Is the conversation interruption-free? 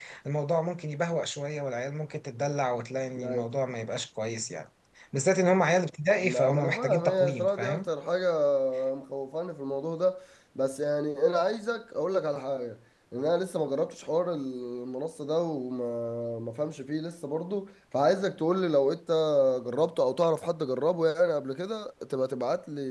No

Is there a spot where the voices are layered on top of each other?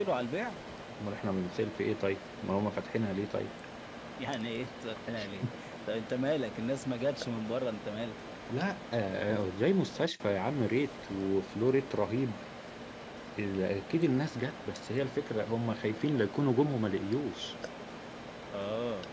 No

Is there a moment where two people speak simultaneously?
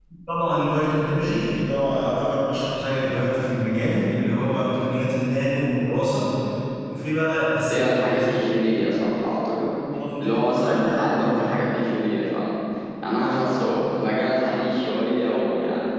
Yes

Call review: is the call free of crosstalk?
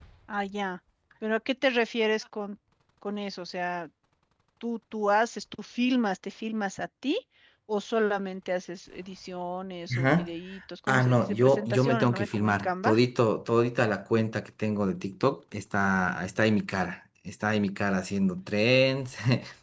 No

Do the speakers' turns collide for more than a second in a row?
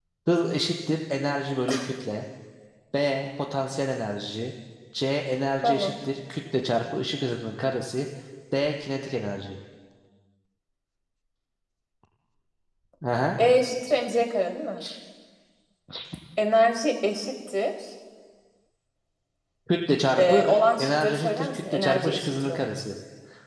Yes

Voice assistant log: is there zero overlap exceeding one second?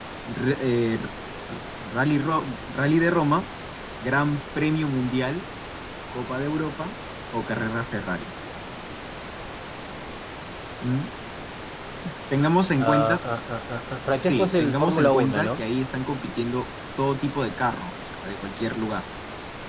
No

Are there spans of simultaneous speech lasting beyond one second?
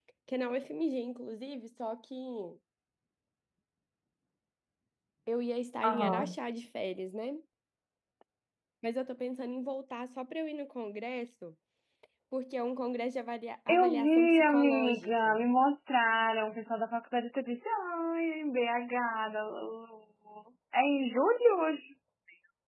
Yes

